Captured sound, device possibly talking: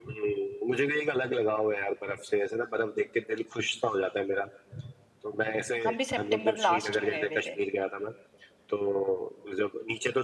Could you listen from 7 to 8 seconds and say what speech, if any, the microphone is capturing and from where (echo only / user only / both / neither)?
both